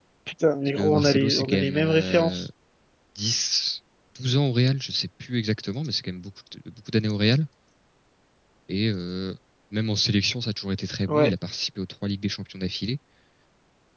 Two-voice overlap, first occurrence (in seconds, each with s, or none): 0.8 s